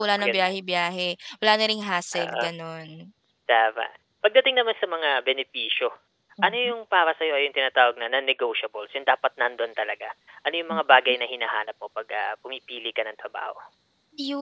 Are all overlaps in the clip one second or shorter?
Yes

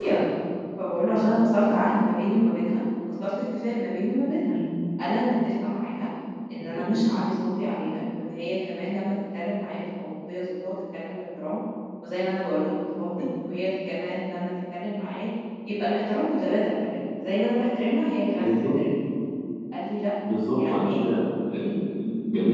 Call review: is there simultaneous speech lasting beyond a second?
No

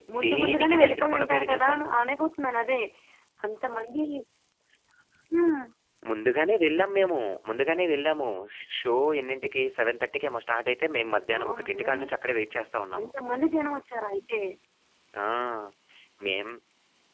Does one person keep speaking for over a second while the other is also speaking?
Yes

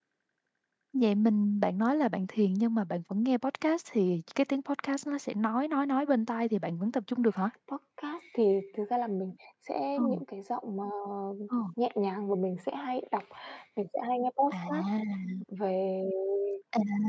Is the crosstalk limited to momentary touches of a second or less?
Yes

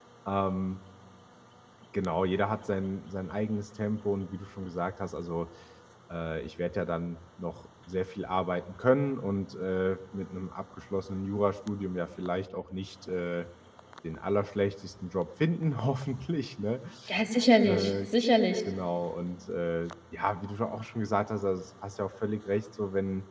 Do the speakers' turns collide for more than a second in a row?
No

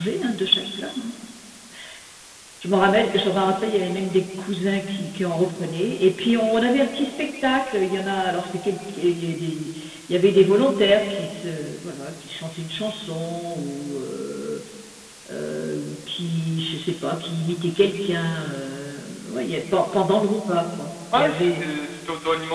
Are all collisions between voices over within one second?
Yes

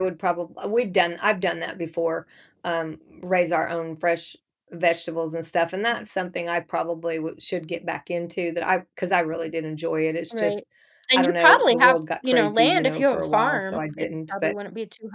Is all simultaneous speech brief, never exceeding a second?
No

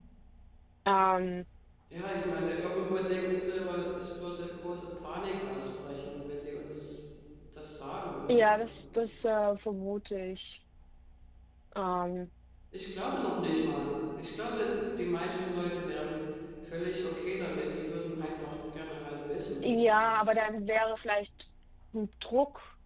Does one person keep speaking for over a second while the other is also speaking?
No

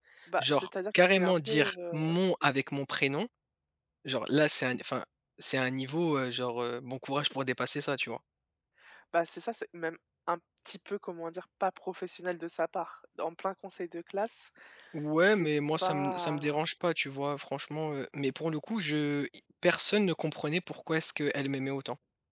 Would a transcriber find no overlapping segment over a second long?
No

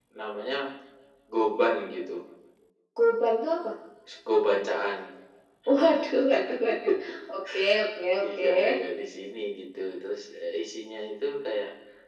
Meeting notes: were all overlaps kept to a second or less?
Yes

